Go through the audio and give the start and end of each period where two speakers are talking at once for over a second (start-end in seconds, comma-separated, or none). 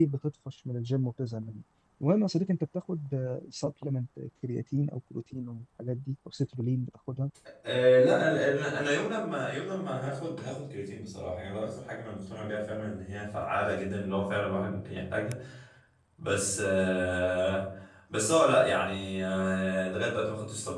none